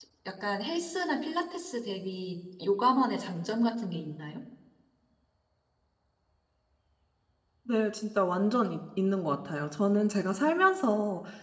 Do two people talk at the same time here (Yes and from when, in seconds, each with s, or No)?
No